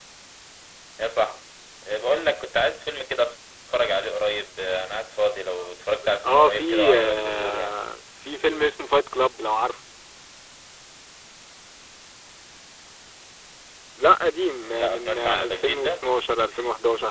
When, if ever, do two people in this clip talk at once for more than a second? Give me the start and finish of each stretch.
6.3-7.8, 14.6-16.0

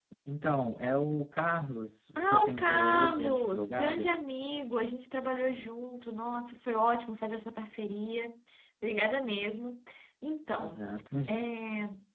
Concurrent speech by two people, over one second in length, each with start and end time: 2.1-4.0

